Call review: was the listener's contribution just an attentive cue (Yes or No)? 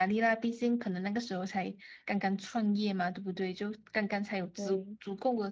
Yes